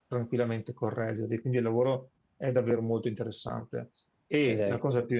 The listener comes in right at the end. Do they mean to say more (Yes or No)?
No